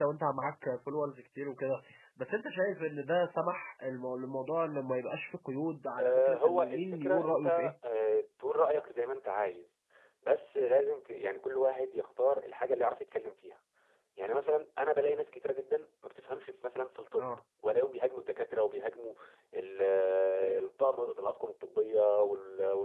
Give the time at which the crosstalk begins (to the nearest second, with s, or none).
6 s